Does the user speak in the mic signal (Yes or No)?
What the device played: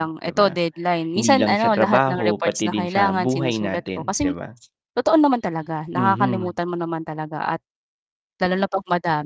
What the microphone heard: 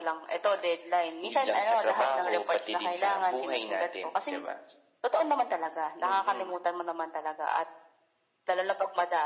No